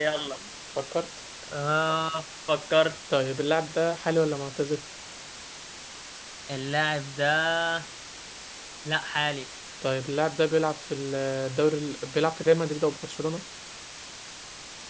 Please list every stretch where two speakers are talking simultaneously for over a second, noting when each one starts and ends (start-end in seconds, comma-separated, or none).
none